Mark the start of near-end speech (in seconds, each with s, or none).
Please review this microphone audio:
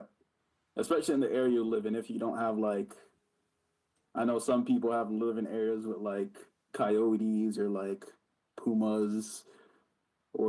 none